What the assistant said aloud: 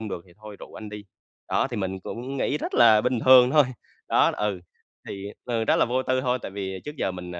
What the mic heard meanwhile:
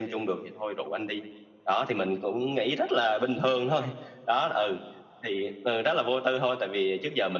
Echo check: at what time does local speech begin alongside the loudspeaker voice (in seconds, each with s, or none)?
none